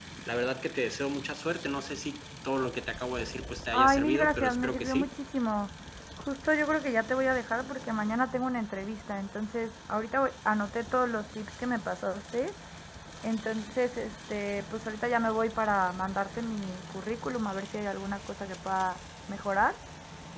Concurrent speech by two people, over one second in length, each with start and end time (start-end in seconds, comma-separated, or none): 3.7-5.1